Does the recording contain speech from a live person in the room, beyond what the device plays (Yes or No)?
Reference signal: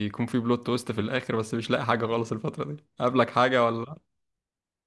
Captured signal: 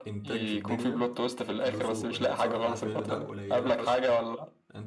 Yes